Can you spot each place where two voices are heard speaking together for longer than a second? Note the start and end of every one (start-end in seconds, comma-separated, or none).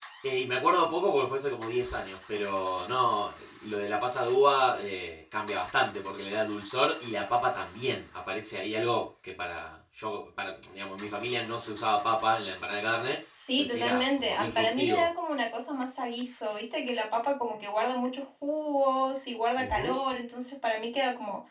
13.6-15.1